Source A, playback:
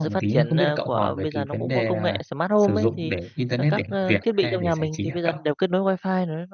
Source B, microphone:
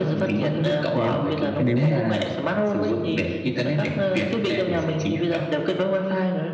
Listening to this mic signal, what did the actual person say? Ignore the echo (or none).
nếu nếu mà,